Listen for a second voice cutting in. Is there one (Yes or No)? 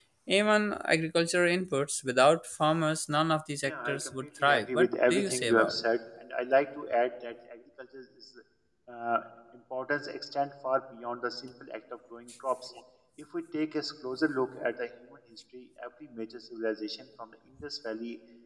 Yes